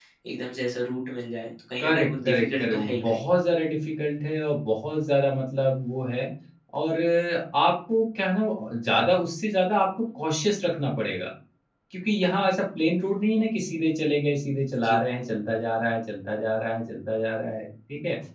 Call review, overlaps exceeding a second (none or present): present